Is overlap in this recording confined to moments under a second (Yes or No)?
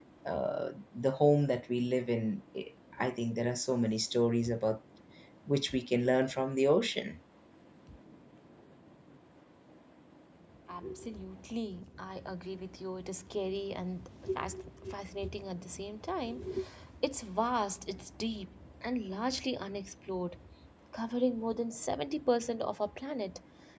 Yes